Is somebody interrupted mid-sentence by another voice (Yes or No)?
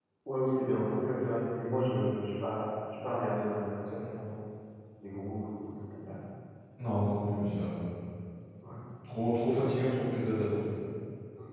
No